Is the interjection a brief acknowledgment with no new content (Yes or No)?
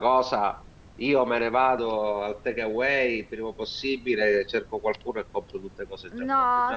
No